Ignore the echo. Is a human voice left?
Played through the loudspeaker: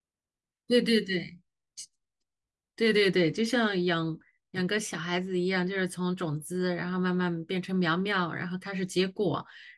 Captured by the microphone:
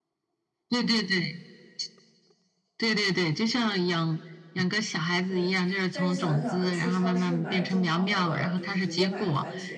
Yes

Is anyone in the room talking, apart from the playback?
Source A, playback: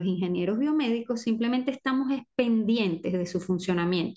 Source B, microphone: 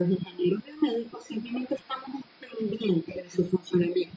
No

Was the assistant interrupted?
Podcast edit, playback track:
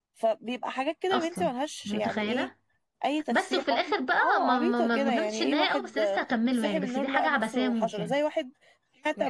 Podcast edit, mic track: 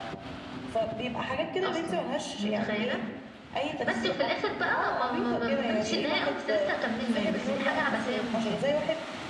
No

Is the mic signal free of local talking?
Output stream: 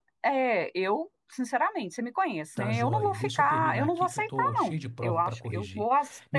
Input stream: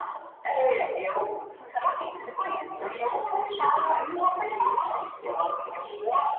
Yes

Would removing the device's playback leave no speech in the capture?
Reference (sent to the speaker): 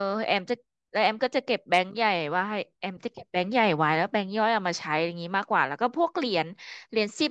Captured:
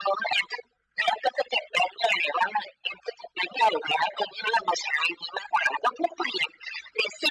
Yes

